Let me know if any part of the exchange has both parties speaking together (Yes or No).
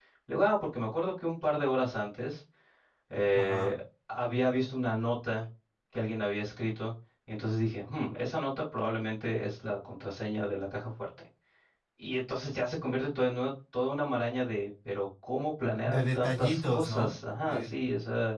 Yes